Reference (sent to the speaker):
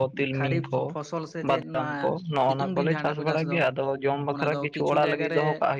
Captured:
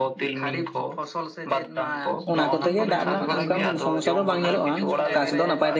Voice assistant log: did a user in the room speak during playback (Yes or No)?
Yes